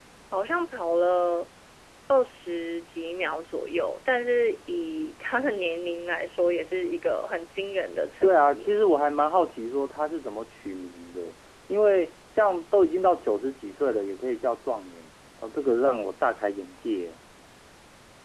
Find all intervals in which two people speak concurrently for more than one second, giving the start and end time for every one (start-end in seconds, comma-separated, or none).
none